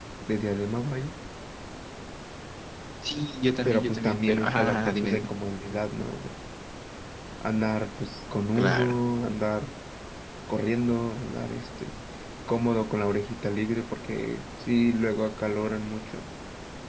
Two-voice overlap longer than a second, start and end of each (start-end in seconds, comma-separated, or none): 3.6-5.4